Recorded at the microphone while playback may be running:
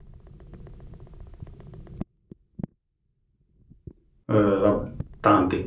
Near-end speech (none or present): present